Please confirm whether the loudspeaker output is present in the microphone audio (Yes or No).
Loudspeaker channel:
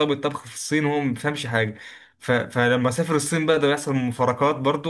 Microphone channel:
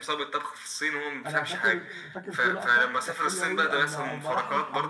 Yes